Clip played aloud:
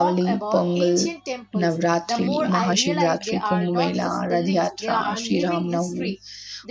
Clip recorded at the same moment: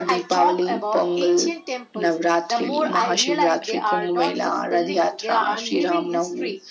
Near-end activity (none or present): none